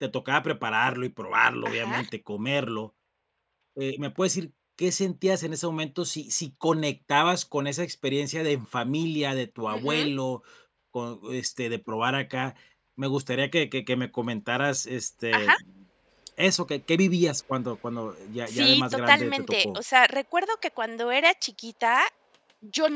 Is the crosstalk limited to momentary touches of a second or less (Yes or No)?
No